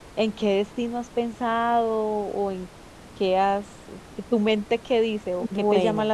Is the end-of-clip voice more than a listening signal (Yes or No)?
Yes